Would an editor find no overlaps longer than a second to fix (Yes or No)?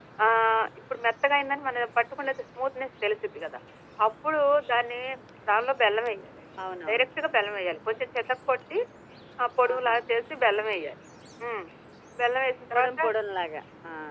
Yes